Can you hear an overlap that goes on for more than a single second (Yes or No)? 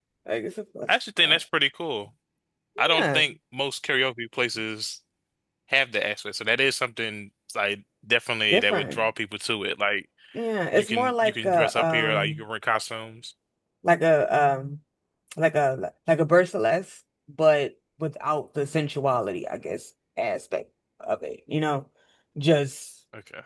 Yes